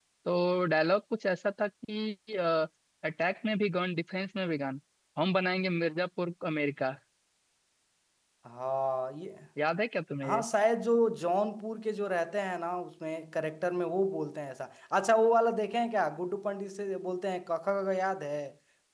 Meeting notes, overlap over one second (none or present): none